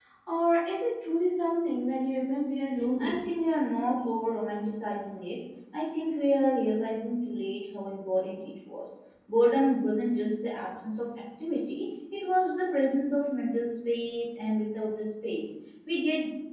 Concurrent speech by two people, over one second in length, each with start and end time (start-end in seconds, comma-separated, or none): none